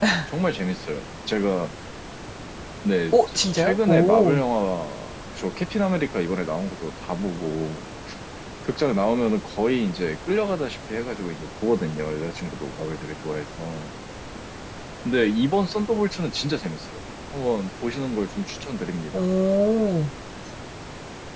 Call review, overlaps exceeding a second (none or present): present